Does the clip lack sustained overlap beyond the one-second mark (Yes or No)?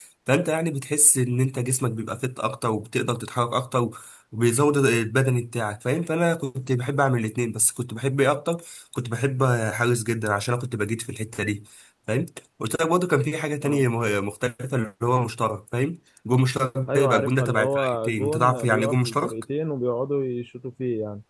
No